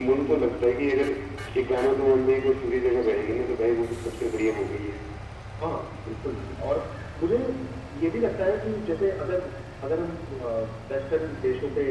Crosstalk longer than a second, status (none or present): none